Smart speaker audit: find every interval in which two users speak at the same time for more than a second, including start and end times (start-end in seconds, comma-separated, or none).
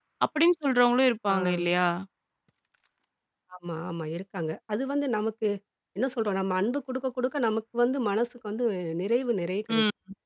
none